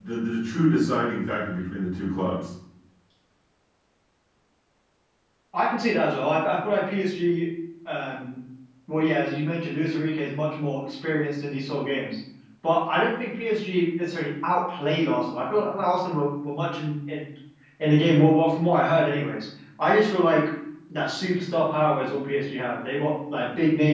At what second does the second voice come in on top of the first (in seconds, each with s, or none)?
none